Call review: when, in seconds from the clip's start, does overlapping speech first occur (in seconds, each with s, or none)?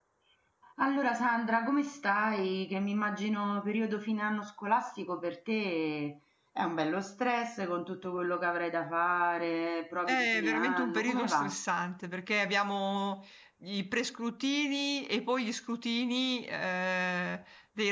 10.1 s